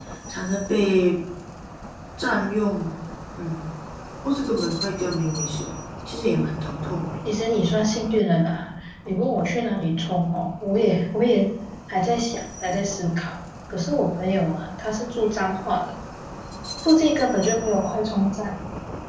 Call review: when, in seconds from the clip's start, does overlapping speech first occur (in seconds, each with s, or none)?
none